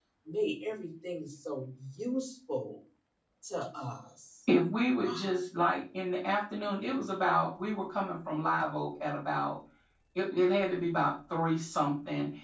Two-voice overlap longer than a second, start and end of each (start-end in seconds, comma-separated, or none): none